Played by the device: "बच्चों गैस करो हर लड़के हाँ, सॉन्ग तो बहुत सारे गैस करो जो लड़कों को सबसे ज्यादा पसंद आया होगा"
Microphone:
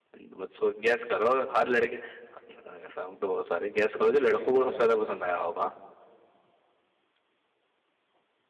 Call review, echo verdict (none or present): present